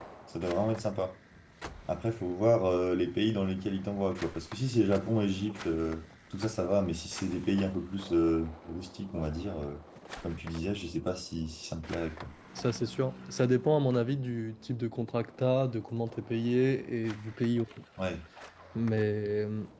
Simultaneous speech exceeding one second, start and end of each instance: none

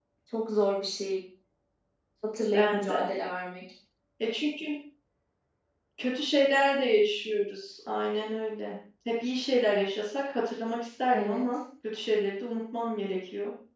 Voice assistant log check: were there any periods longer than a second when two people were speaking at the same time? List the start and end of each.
none

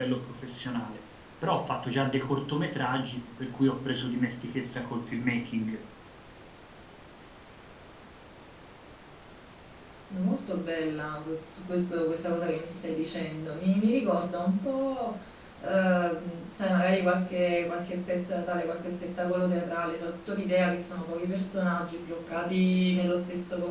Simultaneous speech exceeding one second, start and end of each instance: none

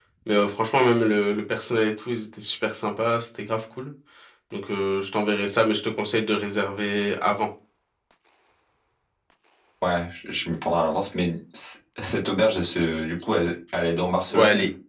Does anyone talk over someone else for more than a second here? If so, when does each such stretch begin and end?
none

